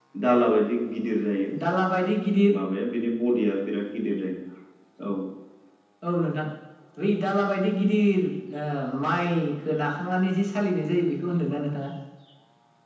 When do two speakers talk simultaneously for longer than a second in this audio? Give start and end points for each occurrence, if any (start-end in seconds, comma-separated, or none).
none